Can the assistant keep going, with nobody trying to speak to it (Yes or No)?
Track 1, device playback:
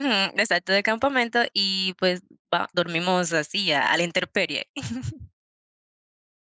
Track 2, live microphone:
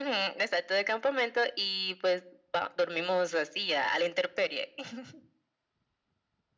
Yes